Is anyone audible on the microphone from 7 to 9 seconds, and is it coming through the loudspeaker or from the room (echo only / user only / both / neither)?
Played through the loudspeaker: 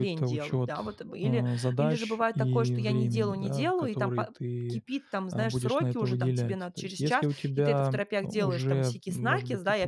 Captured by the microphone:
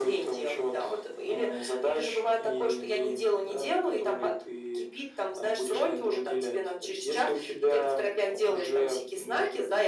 echo only